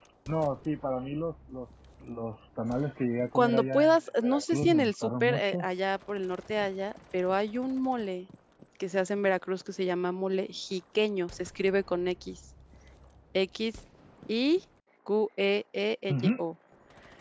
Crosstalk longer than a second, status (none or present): present